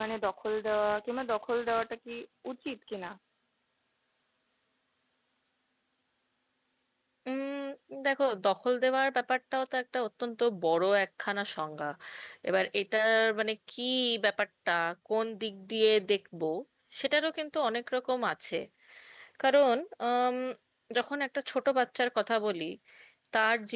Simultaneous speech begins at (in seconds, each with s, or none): none